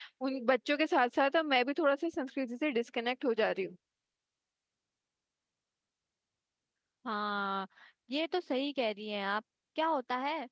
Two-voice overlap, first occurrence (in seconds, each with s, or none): none